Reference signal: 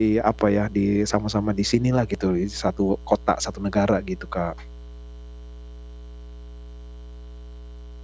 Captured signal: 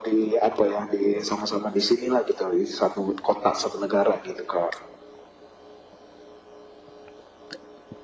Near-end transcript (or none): none